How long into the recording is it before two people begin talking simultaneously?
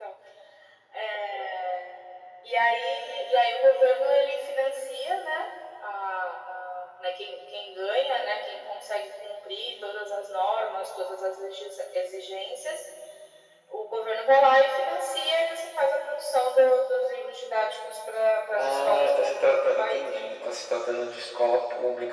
18.6 s

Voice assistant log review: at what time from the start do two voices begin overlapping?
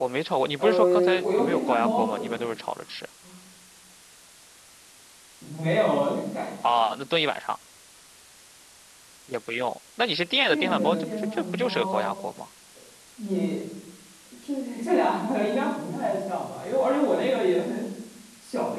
0.6 s

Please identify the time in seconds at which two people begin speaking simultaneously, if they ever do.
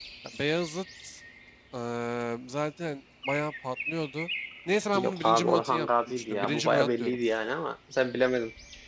5.0 s

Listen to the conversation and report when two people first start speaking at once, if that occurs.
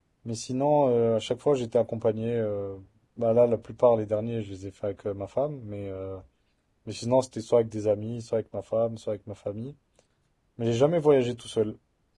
none

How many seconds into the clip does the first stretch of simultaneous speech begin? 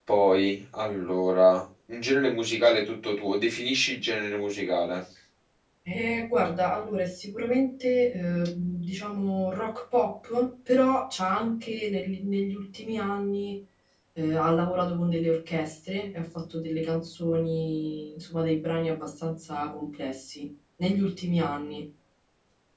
none

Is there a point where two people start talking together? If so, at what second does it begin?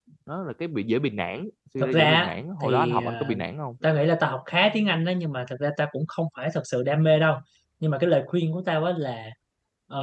1.8 s

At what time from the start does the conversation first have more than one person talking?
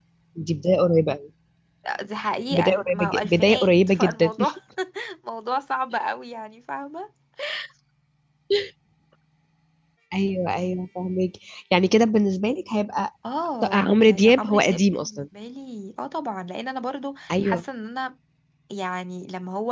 2.5 s

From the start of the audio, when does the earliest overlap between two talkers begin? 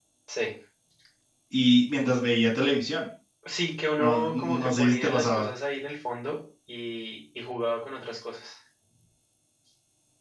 4.0 s

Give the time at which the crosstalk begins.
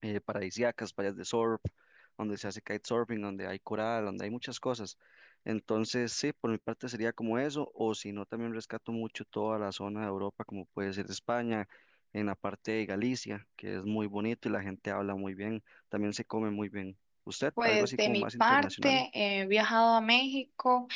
17.6 s

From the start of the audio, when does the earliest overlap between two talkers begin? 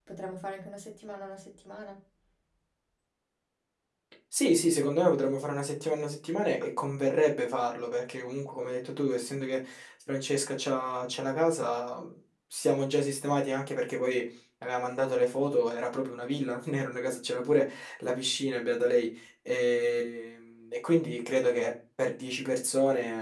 none

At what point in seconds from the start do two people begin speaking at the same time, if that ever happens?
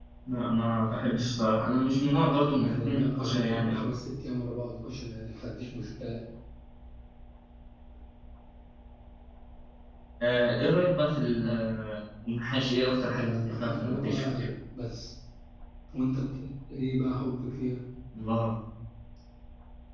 2.4 s

